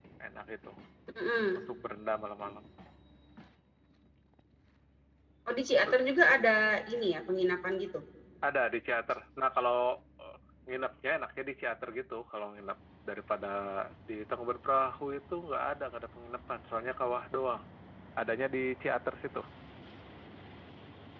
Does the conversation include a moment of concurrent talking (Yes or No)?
No